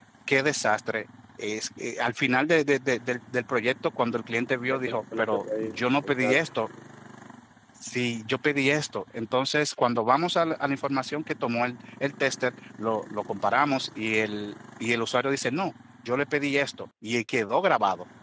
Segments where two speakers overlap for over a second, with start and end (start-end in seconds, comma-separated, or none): 4.7-6.4